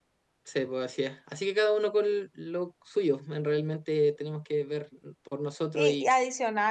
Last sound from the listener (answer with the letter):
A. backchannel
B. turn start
B